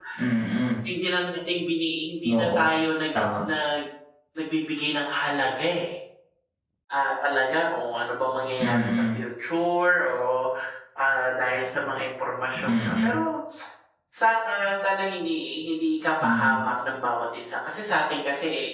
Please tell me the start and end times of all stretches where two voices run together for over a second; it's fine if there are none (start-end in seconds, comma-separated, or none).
none